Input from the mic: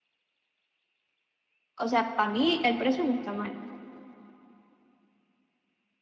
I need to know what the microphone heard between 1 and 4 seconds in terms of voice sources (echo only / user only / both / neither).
user only